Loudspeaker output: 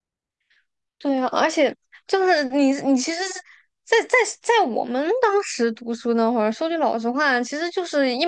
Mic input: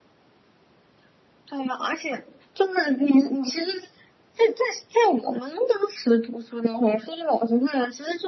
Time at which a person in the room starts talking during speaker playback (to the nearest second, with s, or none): none